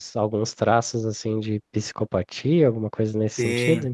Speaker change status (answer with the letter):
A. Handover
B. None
A